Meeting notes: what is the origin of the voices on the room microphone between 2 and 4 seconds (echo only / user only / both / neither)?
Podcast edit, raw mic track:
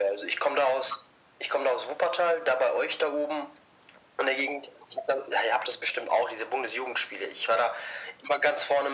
echo only